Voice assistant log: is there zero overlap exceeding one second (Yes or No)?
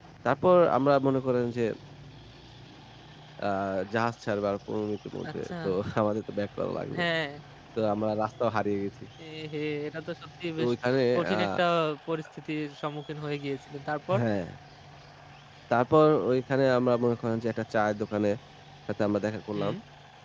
Yes